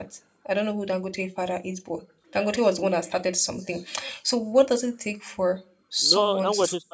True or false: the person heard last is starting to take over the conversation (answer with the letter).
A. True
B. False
A